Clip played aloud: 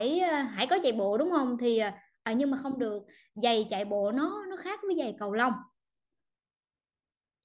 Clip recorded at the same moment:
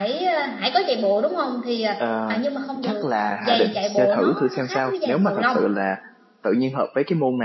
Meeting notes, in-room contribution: present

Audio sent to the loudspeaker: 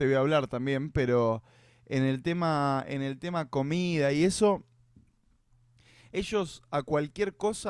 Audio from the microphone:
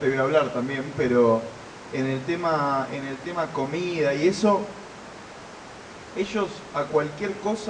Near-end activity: none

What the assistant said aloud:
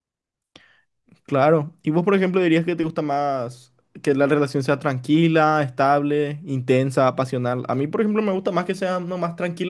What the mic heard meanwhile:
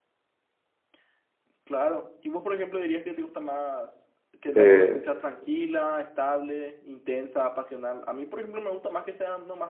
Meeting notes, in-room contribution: present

